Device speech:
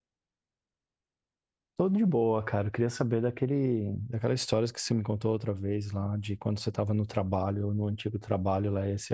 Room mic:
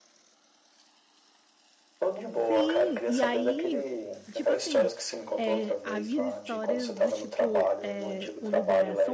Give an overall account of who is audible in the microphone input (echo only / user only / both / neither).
both